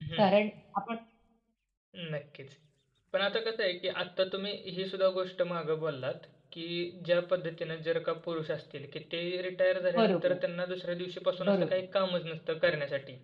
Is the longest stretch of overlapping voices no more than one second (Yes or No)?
Yes